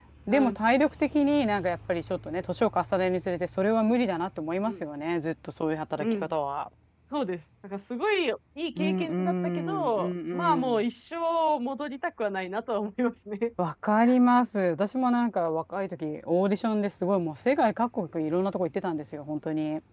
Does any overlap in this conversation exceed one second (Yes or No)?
Yes